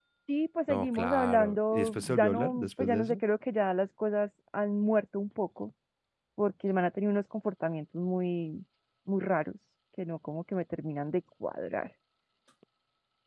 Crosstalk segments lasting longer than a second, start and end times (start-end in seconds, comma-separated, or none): 0.7-3.1